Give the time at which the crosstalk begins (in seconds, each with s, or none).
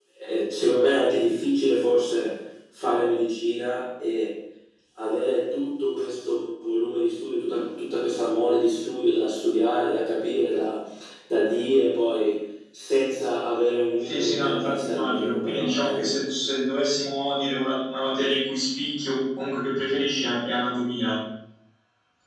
14.1 s